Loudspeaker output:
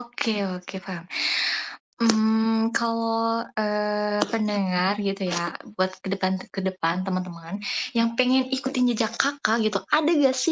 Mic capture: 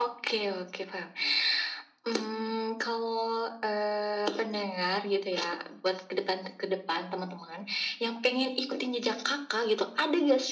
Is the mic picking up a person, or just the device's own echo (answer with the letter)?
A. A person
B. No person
B